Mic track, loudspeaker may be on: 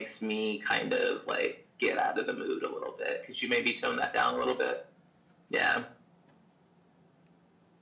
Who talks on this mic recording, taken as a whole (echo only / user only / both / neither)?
echo only